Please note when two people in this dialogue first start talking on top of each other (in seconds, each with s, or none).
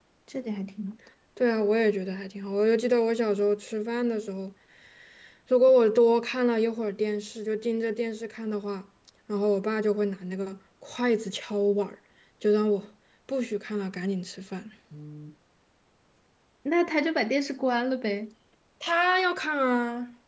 none